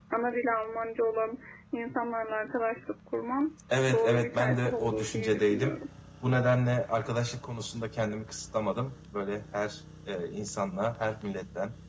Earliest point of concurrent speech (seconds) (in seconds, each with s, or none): 3.7 s